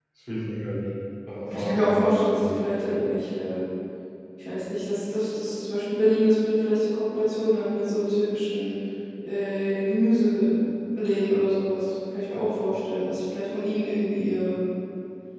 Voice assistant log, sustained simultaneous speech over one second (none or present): present